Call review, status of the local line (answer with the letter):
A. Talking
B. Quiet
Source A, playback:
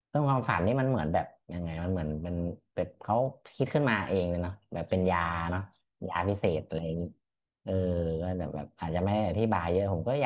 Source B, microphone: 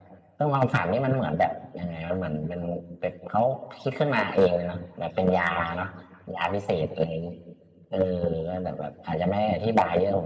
B